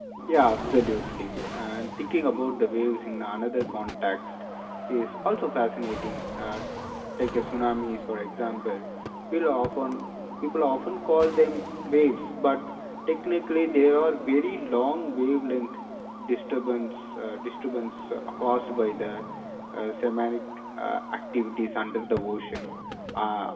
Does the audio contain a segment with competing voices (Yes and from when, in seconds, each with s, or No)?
No